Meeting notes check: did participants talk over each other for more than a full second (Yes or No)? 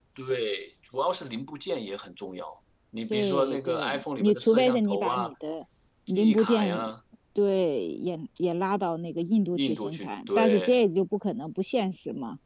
Yes